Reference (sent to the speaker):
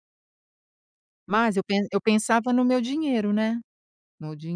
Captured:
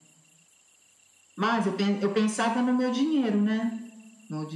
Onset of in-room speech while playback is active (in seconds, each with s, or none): none